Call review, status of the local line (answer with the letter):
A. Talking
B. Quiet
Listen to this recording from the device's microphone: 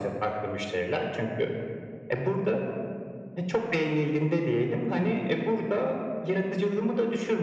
B